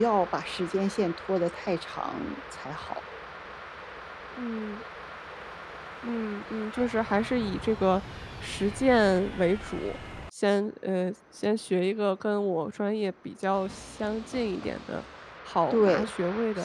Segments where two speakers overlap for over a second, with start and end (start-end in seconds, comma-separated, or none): none